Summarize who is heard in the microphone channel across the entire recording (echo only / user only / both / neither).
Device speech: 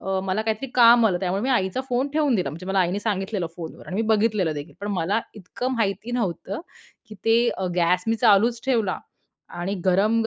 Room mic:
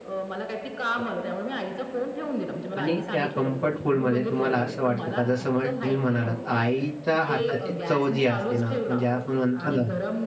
both